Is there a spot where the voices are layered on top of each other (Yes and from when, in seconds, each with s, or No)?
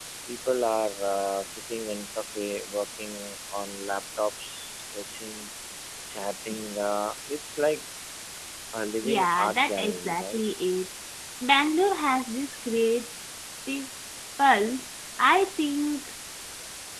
Yes, from 9.0 s